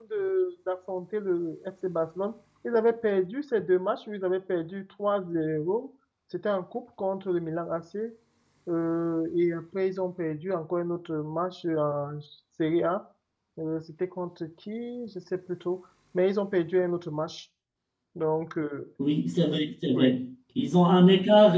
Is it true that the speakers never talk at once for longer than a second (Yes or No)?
Yes